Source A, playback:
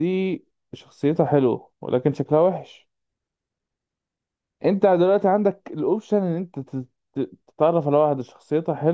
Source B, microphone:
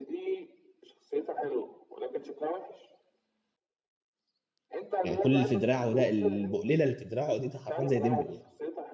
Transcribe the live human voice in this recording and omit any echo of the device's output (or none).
يعني كل اللي في دراعه ده البقليله اللي في دراعه دي ده حرفيا زي ديمبل يعني